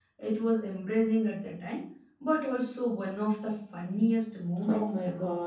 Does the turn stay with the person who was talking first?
No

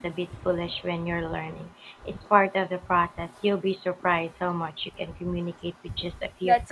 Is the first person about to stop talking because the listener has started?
Yes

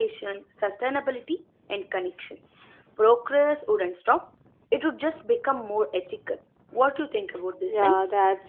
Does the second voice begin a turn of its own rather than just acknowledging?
Yes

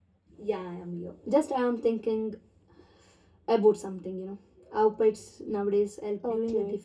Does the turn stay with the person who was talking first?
No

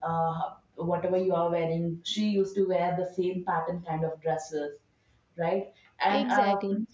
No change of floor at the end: Yes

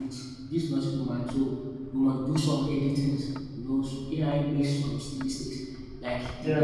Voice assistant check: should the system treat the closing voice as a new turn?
No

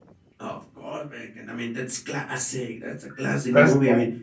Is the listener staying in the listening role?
Yes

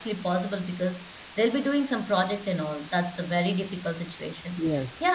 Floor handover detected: No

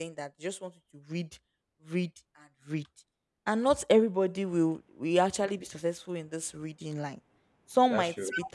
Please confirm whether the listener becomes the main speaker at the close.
No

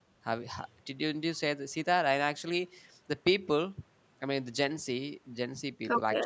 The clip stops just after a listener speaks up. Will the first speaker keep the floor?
Yes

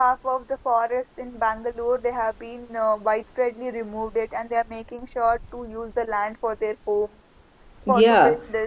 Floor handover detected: Yes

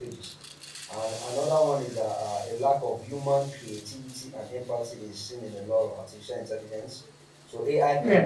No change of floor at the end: Yes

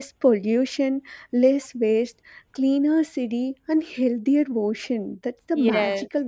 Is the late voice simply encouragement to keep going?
No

